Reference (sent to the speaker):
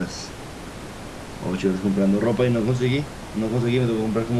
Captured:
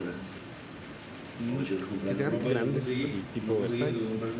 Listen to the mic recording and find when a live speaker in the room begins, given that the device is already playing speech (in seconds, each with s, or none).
1.4 s